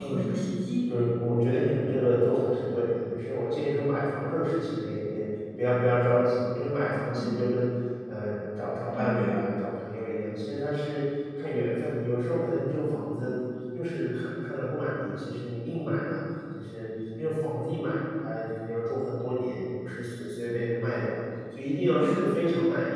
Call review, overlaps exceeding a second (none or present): none